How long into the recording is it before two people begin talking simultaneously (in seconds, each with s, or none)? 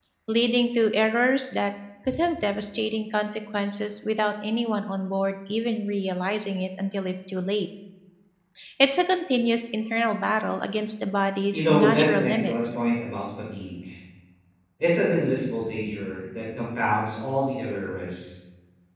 11.5 s